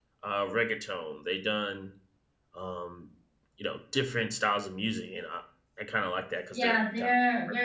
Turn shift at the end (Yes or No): Yes